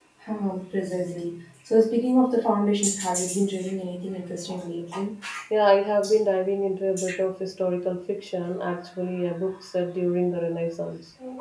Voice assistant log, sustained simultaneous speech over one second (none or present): none